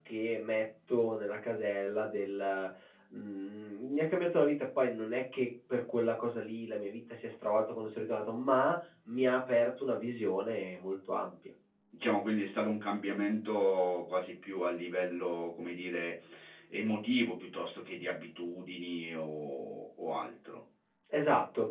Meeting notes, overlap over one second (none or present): none